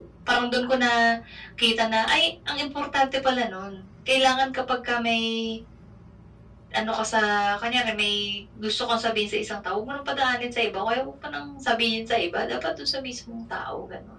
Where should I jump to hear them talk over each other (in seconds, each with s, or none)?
none